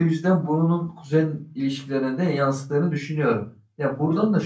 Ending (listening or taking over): listening